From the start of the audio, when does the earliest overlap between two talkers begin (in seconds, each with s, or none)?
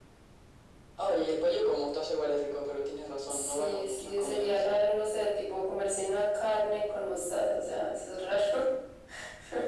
3.3 s